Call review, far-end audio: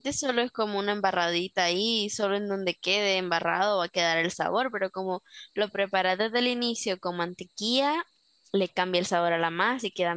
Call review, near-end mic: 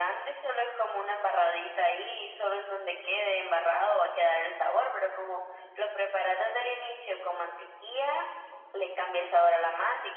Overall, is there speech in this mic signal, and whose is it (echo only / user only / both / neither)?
echo only